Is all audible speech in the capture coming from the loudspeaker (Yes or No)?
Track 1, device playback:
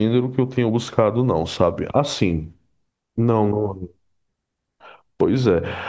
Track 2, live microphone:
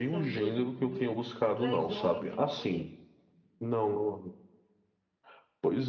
No